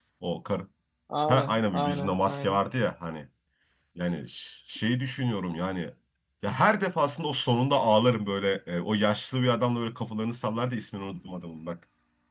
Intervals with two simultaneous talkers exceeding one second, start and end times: 1.3-2.6

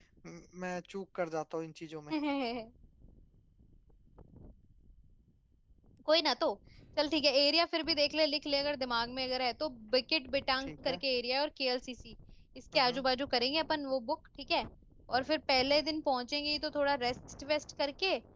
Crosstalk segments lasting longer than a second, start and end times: none

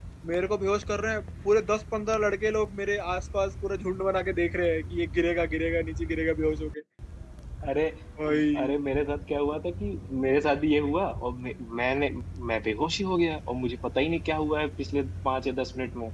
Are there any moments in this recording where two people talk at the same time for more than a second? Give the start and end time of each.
none

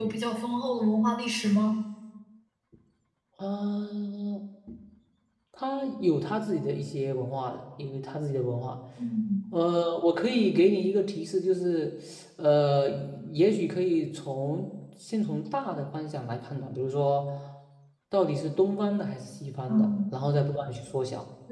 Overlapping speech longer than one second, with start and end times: none

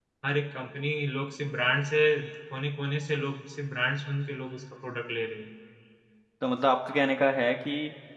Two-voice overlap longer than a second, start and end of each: none

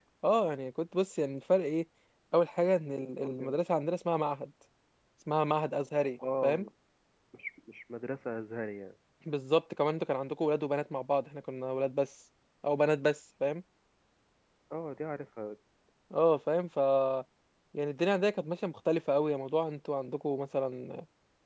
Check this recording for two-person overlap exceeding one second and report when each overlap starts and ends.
none

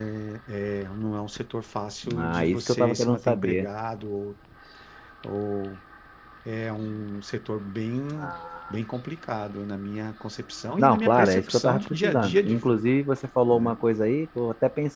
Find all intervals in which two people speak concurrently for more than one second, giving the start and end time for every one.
2.2-3.7, 10.8-12.8

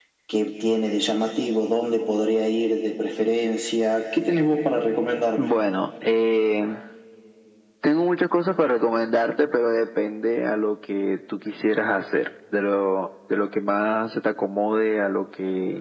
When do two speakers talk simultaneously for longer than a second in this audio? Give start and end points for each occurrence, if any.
none

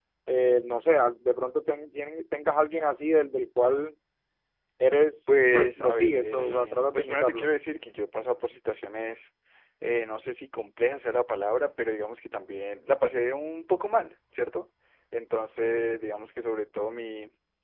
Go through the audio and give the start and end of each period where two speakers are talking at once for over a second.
5.3-7.5

